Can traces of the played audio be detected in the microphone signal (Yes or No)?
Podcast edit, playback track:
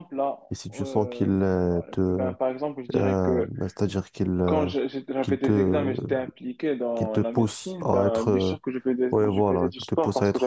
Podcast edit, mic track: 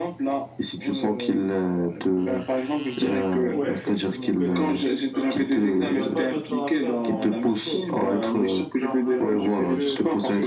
Yes